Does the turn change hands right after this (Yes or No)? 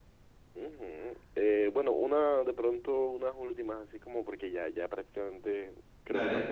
No